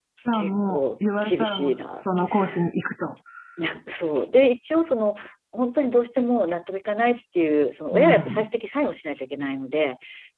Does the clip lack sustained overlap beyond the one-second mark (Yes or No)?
No